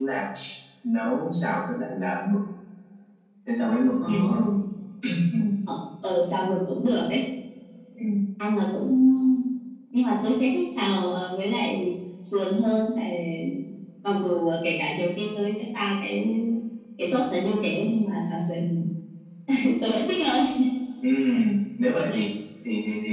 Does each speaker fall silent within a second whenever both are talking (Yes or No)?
Yes